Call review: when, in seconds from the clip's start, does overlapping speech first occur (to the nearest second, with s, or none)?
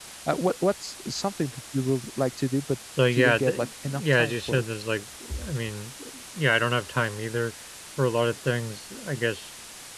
3 s